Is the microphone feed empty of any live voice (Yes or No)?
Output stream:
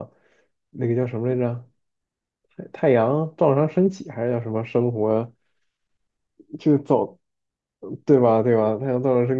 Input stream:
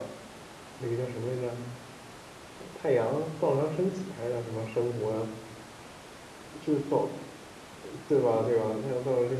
Yes